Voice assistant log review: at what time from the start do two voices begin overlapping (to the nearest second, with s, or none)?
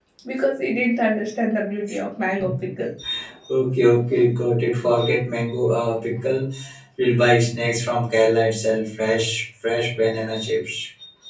none